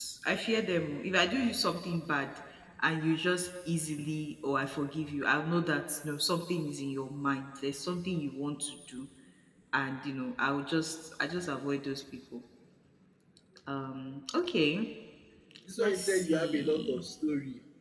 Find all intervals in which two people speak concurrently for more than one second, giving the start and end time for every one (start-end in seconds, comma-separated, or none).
15.8-17.0